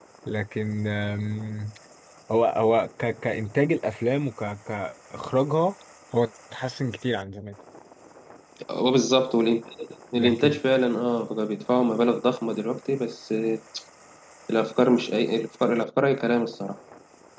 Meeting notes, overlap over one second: none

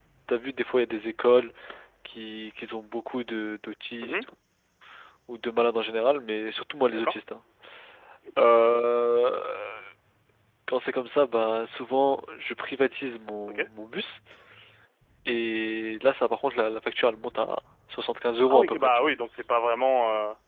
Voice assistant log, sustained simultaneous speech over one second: none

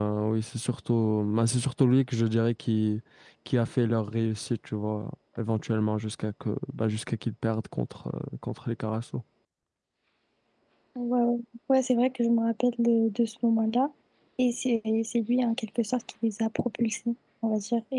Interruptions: none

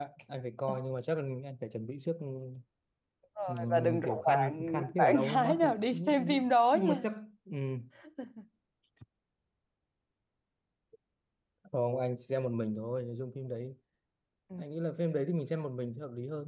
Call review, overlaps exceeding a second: present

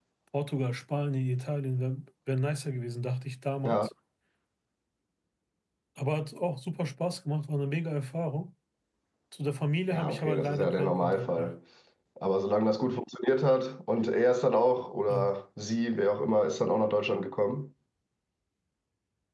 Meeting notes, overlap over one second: present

